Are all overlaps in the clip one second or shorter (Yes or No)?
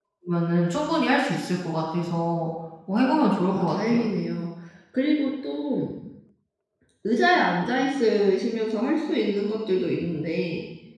Yes